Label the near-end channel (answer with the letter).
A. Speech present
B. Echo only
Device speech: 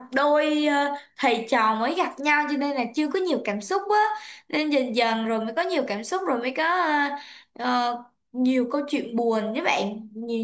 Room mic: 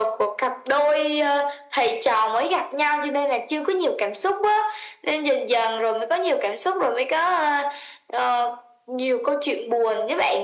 B